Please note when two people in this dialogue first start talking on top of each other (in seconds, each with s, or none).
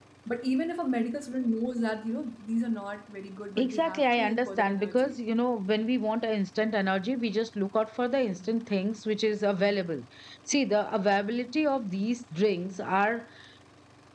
3.6 s